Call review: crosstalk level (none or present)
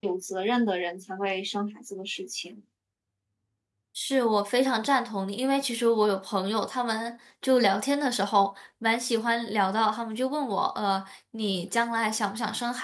none